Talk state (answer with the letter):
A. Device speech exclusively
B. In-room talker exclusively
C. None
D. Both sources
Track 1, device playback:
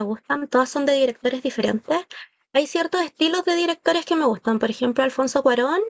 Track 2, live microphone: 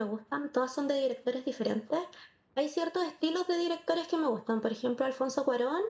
A